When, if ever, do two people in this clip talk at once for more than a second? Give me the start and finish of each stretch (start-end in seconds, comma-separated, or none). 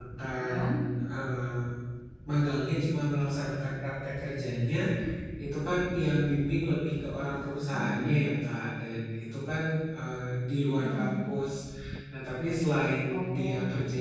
none